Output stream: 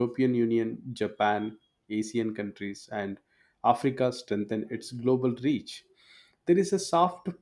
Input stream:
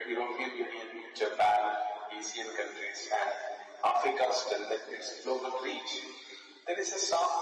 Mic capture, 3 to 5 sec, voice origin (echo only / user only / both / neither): echo only